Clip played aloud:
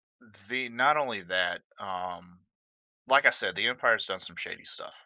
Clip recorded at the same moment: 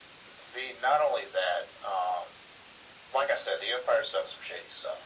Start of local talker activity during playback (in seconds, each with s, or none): none